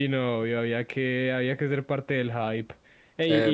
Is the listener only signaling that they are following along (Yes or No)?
No